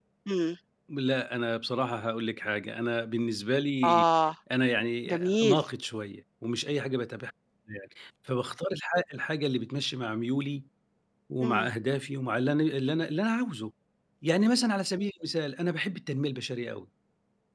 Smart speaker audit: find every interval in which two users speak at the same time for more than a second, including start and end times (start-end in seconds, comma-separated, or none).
none